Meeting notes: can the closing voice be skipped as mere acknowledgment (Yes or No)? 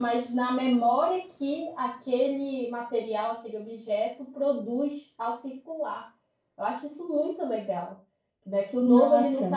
Yes